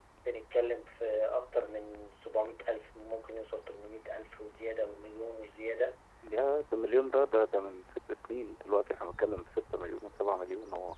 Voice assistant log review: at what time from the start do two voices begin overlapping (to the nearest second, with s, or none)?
none